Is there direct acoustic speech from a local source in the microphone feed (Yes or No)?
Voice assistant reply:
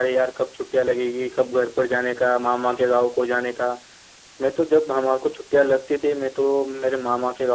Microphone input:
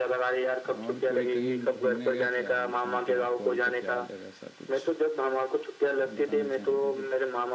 Yes